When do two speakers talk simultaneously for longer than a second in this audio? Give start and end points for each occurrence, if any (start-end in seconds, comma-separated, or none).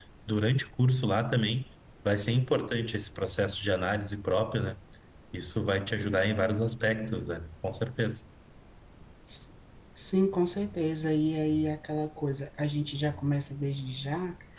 none